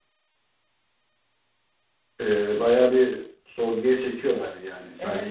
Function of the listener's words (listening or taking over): taking over